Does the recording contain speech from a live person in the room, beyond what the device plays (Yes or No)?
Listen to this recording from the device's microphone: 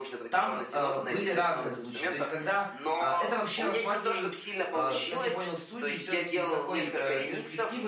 Yes